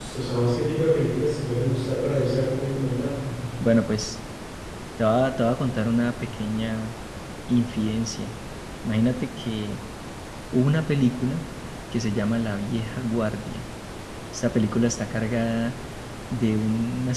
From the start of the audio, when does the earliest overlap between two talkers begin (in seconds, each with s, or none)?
none